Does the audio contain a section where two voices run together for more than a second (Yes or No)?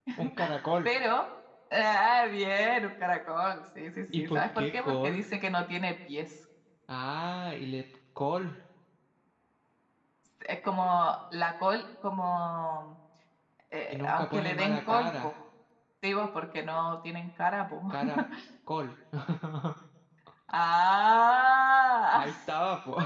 Yes